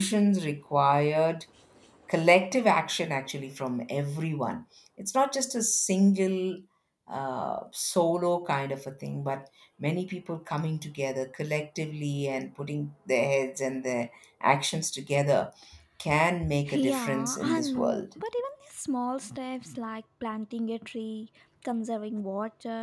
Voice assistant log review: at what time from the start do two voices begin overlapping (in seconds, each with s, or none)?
16.7 s